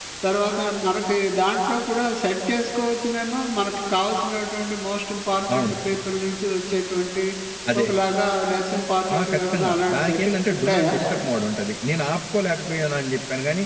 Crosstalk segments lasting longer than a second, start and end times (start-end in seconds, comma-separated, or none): 9.2-10.9